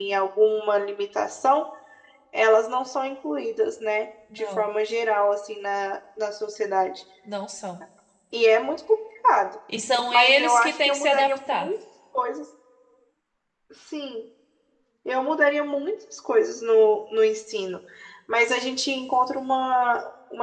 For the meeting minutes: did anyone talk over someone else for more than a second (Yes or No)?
Yes